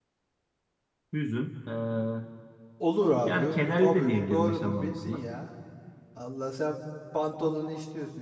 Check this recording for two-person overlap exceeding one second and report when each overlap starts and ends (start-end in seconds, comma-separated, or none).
3.2-5.2